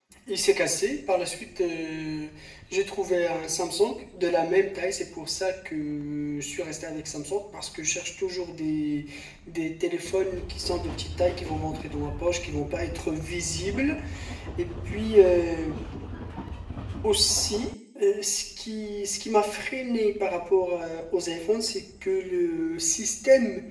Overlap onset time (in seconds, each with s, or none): none